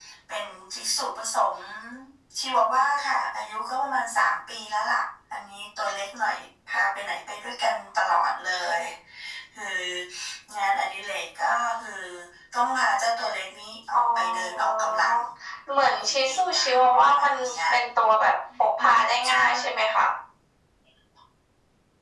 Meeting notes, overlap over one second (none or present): present